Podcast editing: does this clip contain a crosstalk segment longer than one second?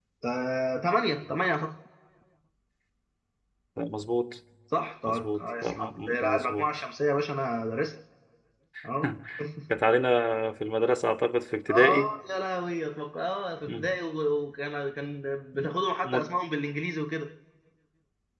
Yes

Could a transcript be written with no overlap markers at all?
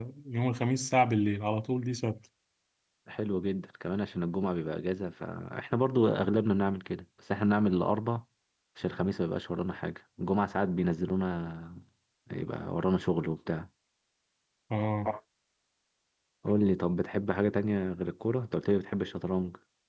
Yes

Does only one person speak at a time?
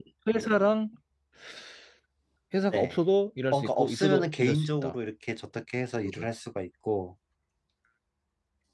No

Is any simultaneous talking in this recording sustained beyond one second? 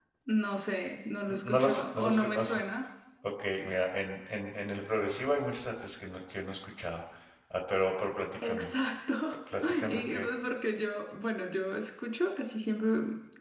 Yes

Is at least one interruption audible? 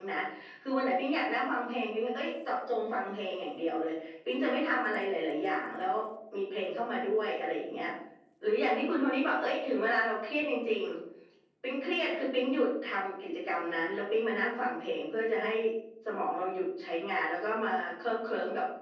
No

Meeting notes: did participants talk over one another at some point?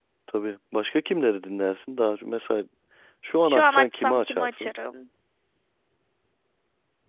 Yes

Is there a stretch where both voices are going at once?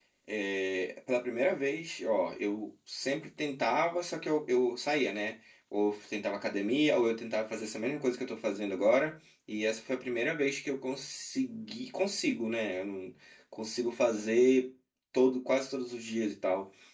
No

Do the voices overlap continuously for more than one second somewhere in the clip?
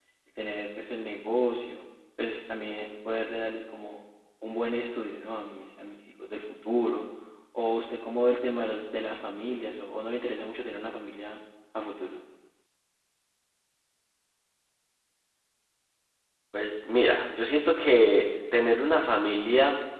No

